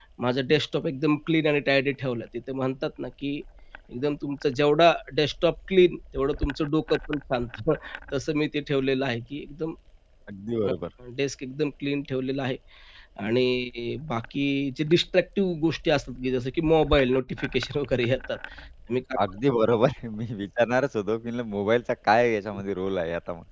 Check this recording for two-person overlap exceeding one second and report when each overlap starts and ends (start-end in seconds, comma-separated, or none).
none